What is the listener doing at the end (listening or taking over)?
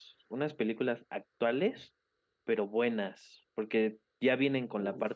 listening